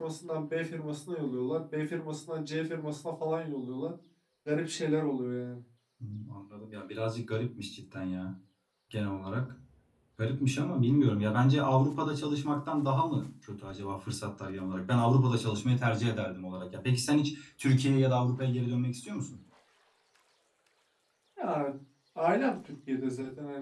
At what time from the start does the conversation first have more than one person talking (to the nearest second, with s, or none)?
none